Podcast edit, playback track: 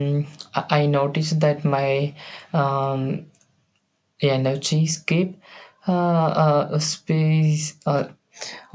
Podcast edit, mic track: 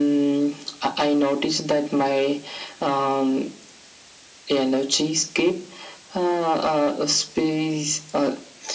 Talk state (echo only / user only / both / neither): echo only